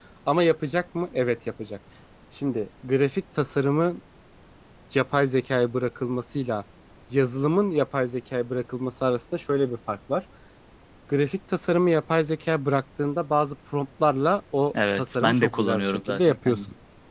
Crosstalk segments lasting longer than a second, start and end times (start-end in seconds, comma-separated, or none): 15.0-16.6